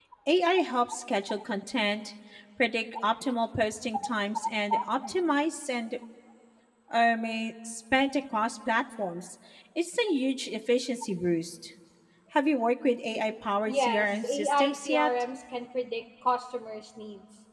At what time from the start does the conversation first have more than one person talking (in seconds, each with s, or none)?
13.7 s